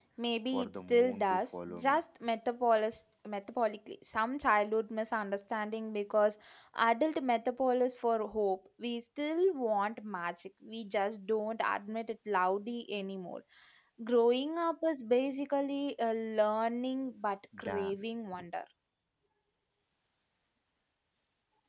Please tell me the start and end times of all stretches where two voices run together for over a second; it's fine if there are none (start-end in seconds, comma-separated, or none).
0.5-2.0